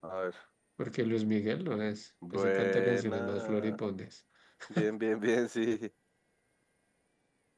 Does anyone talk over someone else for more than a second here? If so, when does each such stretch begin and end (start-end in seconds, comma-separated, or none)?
2.3-3.8